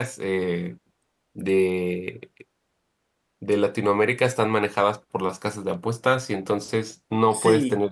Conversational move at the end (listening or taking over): listening